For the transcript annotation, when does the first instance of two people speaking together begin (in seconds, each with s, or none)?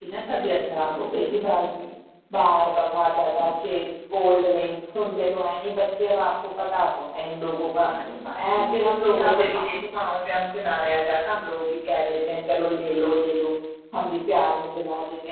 8.4 s